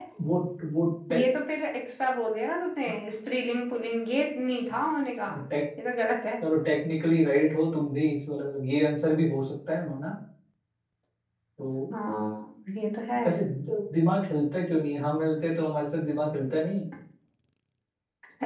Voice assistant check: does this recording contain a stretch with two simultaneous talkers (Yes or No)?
No